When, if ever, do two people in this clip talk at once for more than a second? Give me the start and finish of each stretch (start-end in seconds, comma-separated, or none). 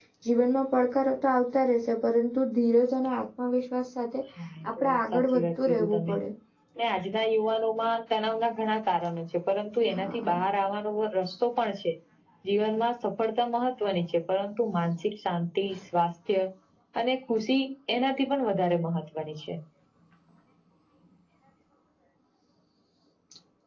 4.8-6.1